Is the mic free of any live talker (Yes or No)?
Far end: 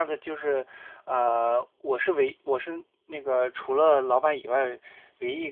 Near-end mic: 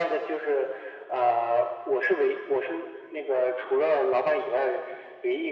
Yes